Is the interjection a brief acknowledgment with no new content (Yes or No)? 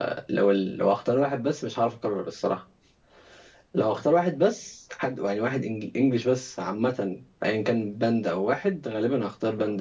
Yes